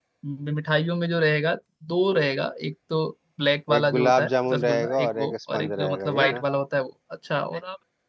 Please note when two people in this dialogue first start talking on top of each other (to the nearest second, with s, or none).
4 s